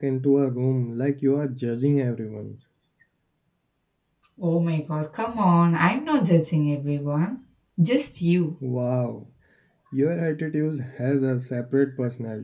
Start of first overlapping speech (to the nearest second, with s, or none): none